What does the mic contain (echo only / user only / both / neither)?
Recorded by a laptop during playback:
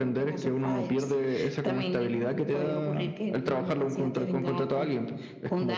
echo only